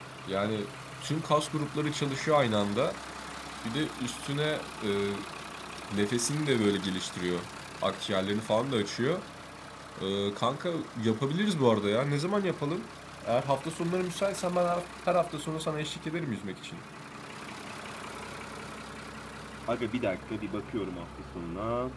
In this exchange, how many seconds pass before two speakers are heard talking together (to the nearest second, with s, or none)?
none